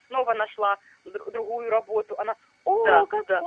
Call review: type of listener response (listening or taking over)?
listening